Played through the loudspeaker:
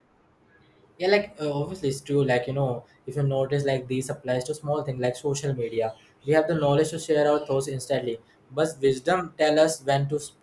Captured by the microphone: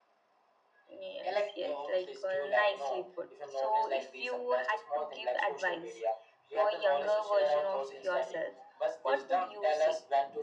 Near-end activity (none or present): present